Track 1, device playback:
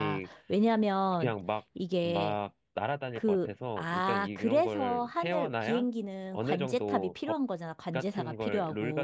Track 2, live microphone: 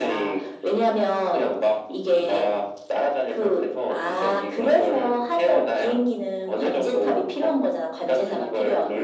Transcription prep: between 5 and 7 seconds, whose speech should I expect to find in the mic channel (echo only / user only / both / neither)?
echo only